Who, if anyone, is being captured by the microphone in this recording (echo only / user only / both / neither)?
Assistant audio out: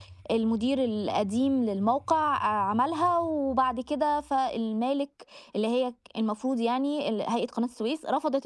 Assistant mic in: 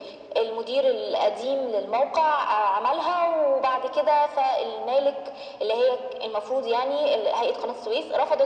echo only